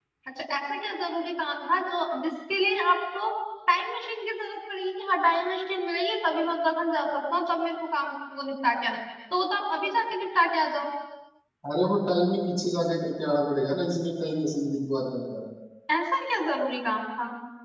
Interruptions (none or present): none